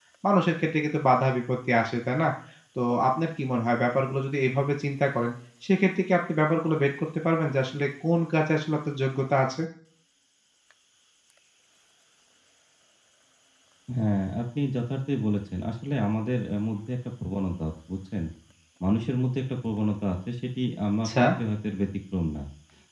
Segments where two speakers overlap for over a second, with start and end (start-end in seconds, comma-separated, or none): none